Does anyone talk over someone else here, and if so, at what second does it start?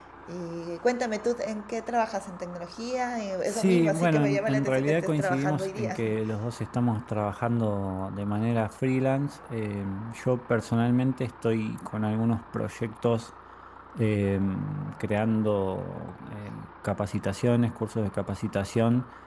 3.5 s

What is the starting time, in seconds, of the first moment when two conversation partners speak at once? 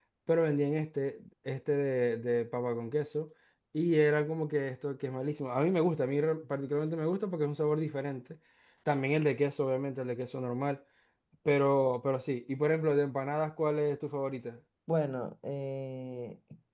none

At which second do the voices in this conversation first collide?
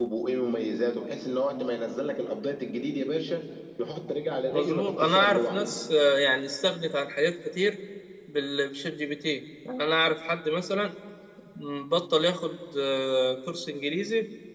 4.5 s

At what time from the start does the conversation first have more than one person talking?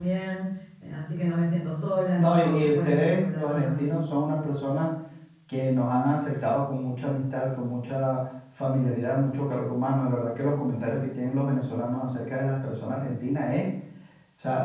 2.2 s

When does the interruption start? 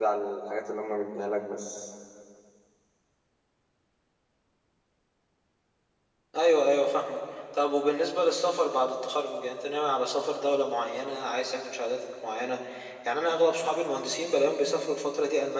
none

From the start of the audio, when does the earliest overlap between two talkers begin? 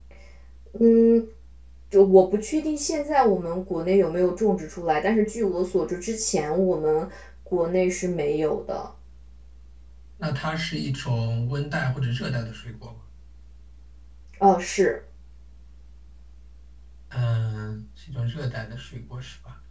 none

